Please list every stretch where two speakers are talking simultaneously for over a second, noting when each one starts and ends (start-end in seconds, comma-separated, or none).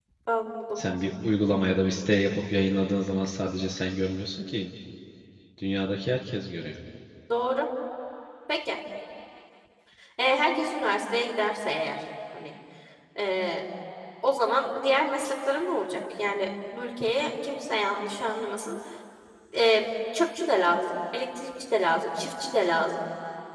none